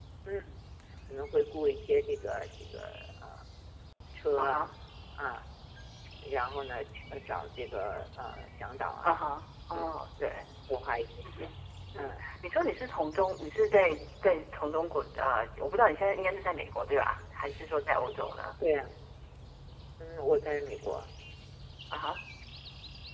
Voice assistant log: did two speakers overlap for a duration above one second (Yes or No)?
No